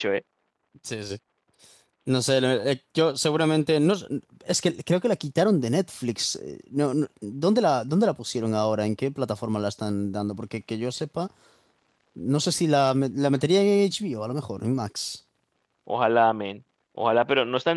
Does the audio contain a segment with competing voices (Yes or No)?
No